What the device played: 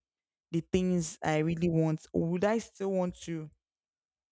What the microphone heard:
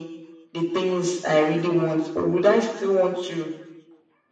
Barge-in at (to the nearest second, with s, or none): none